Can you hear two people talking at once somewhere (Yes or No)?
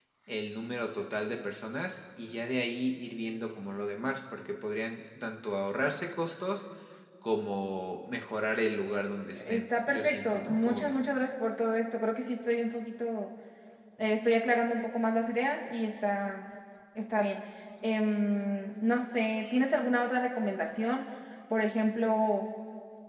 Yes